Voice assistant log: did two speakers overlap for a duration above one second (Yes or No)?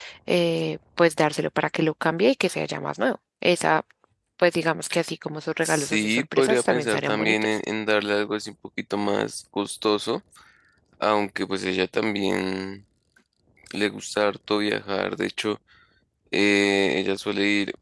Yes